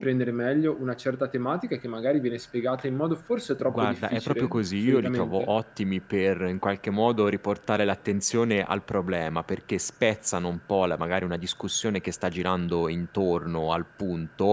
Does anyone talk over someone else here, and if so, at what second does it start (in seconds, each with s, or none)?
3.6 s